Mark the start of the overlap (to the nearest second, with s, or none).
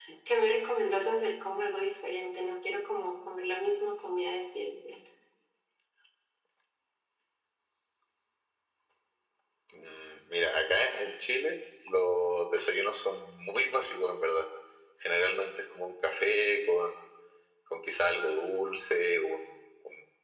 none